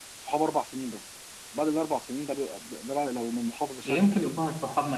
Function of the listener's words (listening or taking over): taking over